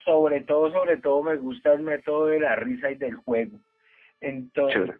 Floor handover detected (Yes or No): No